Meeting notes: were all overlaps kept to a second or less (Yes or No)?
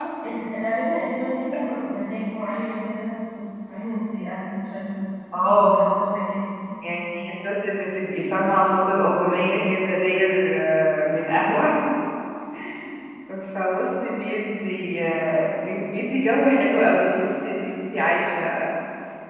Yes